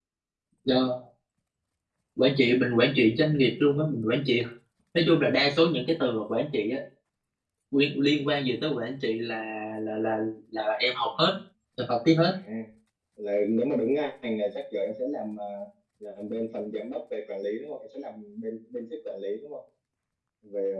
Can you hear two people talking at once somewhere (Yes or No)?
No